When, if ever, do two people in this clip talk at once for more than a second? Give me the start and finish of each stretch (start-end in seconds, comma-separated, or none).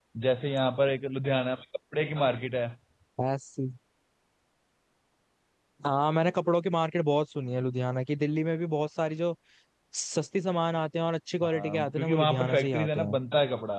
11.4-13.1